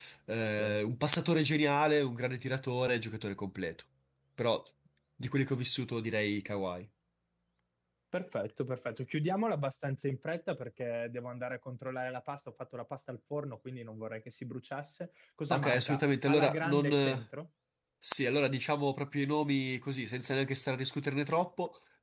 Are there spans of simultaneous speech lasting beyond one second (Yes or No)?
Yes